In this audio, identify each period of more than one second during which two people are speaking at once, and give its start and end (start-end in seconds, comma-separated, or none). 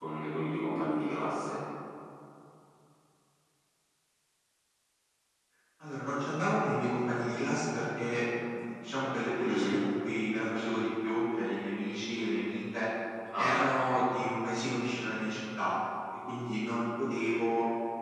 none